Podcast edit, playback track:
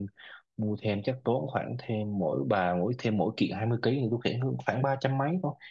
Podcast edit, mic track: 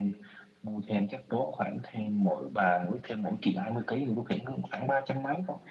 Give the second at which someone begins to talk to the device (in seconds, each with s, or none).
none